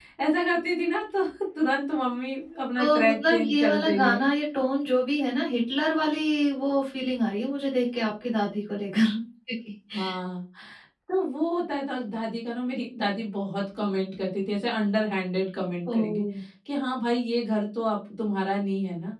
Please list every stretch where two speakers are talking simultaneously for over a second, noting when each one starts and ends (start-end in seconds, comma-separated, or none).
2.8-4.2